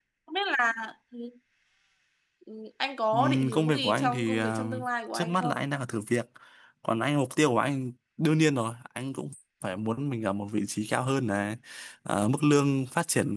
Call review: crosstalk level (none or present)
present